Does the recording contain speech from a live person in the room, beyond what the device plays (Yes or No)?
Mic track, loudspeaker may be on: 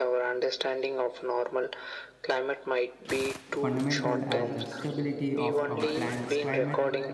Yes